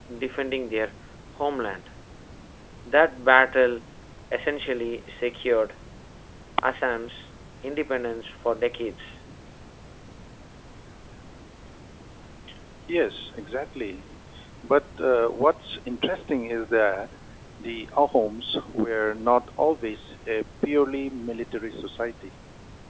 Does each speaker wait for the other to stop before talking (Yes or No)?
Yes